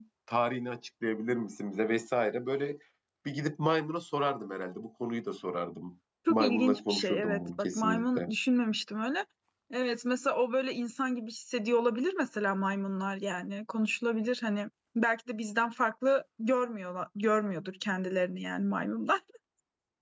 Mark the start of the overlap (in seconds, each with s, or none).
6.3 s